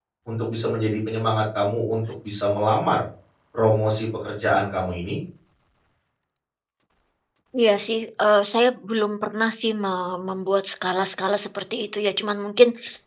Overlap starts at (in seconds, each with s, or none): none